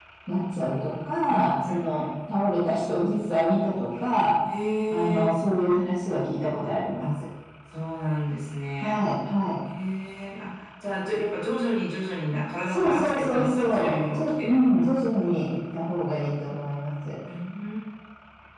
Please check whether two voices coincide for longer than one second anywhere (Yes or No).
Yes